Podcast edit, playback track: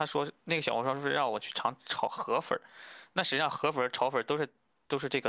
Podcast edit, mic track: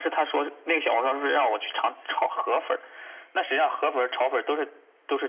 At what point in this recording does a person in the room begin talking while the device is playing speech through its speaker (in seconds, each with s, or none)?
none